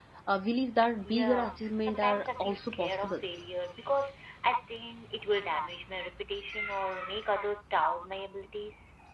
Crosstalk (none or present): present